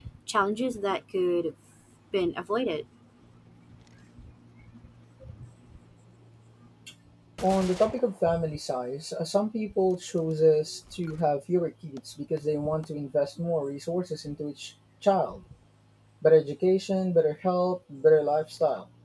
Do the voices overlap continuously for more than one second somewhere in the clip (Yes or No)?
No